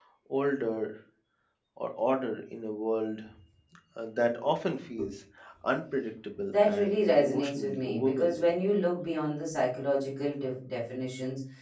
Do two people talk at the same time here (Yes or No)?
Yes